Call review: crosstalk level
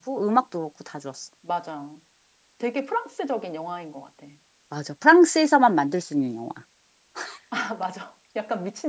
none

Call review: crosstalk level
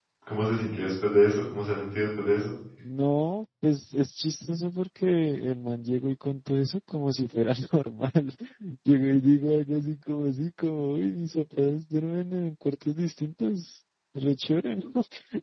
none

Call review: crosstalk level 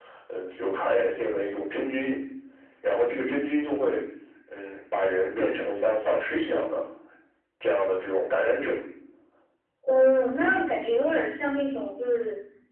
none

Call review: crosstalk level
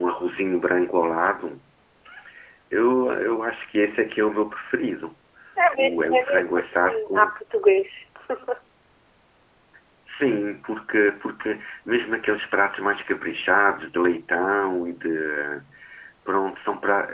present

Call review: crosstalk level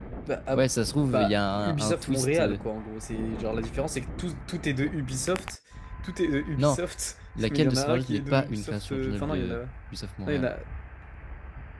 present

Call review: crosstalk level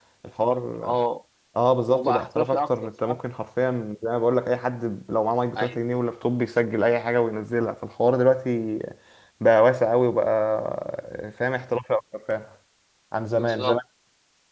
present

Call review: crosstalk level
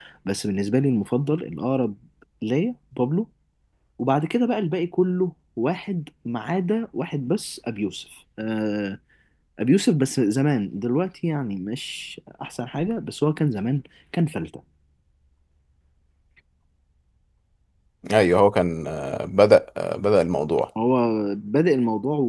none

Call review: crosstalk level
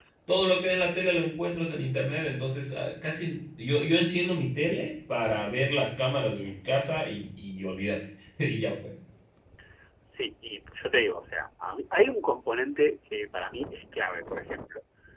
none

